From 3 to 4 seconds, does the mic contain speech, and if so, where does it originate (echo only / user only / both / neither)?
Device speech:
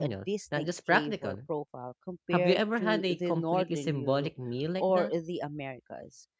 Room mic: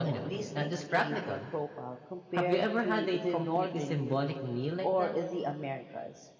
echo only